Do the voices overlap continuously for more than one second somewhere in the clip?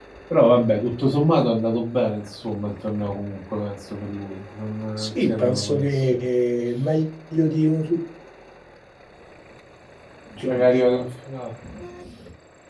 Yes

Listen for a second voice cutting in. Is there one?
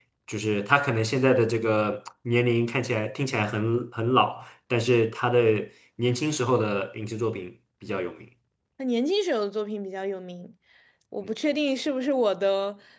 No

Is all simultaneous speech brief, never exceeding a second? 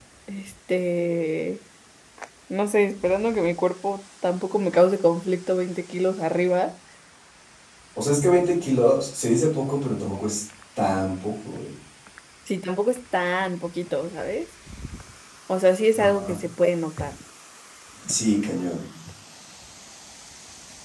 Yes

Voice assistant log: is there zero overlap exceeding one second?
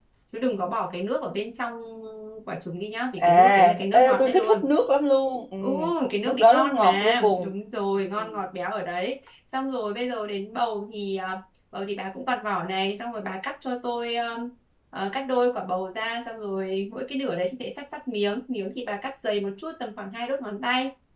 No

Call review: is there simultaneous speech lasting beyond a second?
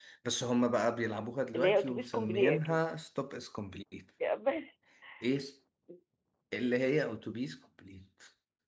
Yes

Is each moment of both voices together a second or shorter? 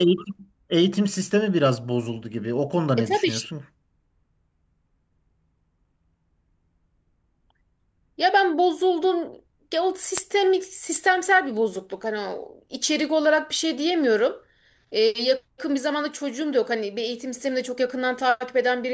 Yes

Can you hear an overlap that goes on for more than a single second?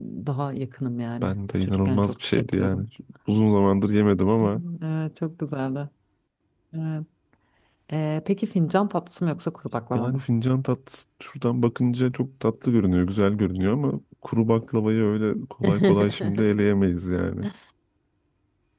Yes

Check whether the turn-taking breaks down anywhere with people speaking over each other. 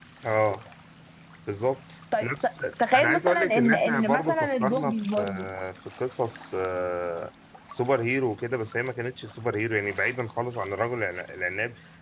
Yes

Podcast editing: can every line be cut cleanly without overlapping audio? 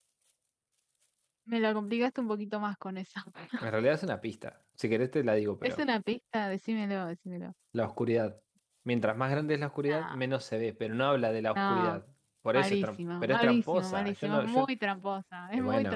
No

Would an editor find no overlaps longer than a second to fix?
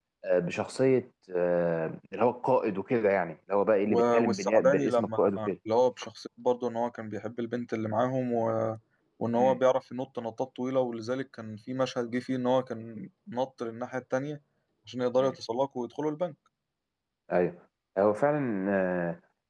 No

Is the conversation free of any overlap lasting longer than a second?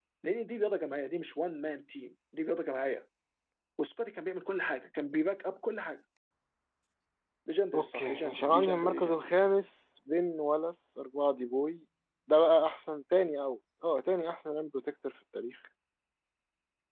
No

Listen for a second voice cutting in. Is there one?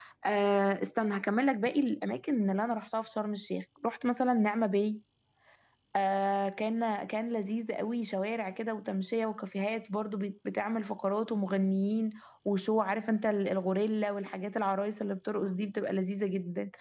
No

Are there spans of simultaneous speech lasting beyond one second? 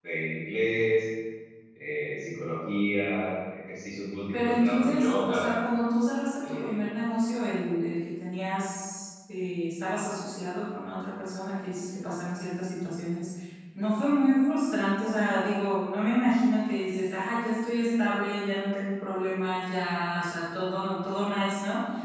Yes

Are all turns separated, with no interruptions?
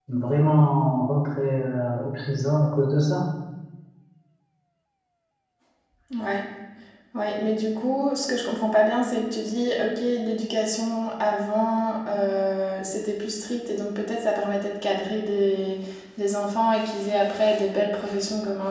Yes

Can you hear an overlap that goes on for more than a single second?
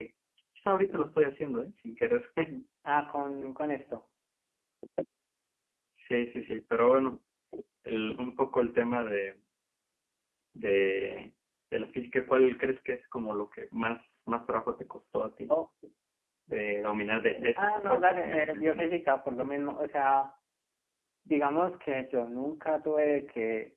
Yes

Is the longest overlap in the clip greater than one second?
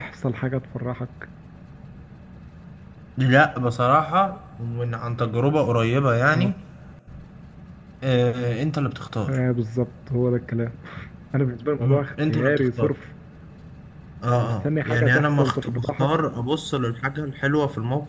Yes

